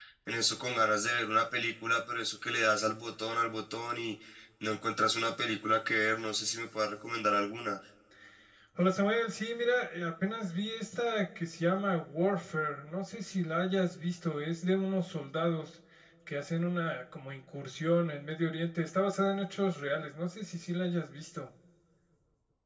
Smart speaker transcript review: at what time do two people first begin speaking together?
none

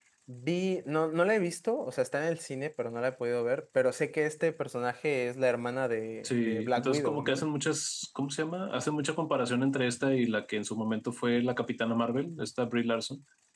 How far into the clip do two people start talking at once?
6.2 s

